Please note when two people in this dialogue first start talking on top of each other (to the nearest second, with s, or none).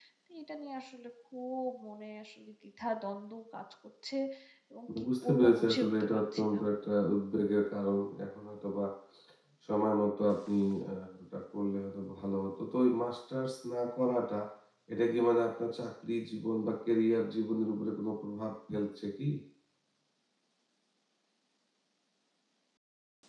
5 s